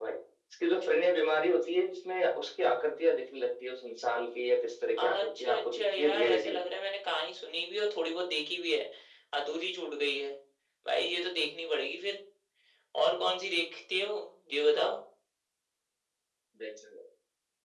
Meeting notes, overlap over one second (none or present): present